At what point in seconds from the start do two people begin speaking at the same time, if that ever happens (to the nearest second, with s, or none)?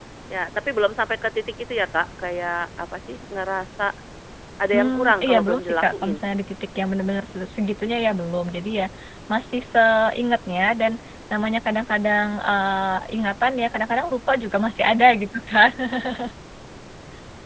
5 s